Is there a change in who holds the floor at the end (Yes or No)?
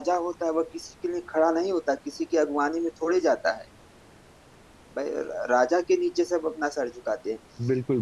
Yes